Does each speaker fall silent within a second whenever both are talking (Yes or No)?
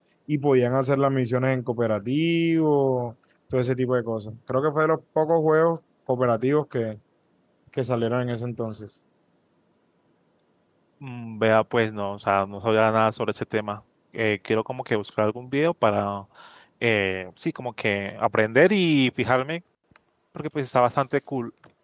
Yes